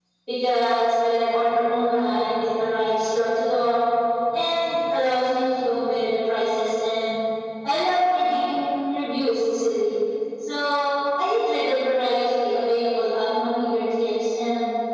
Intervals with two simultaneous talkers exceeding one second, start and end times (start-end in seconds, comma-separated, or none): none